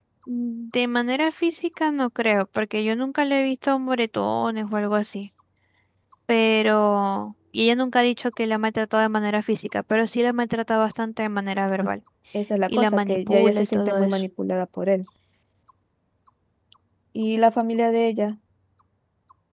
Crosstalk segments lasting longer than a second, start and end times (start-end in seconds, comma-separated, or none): 12.7-14.2